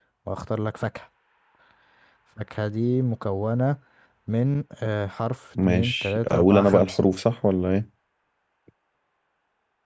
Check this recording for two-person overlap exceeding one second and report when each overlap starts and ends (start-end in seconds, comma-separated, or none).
5.7-7.0